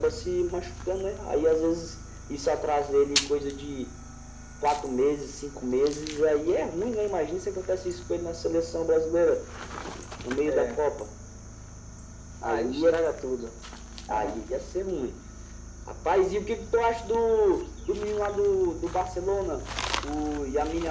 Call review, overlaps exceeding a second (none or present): none